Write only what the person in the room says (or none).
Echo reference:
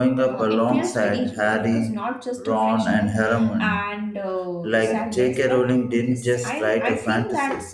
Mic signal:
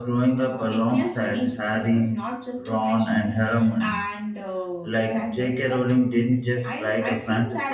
none